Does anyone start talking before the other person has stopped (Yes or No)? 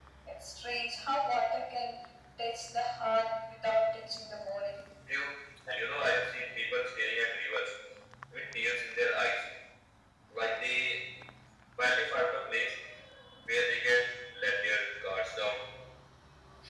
No